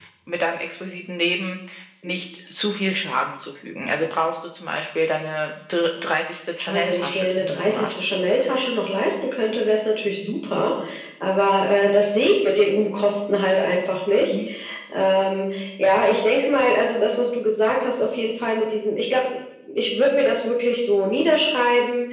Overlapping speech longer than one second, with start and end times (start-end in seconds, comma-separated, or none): 6.7-7.9